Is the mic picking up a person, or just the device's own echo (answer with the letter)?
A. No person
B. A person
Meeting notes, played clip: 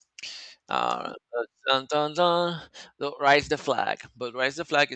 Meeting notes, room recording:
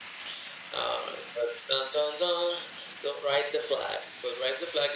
A